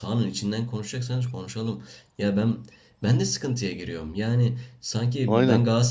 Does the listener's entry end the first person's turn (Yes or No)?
No